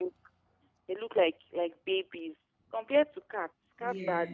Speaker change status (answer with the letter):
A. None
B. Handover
A